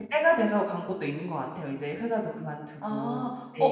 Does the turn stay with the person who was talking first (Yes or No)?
No